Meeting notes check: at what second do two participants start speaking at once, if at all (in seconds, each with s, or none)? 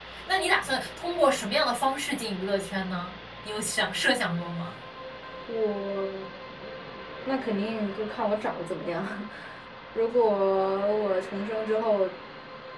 none